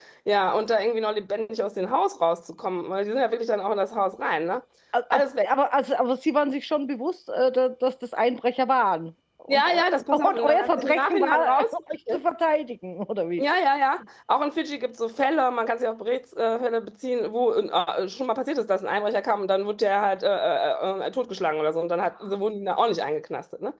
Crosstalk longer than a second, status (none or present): present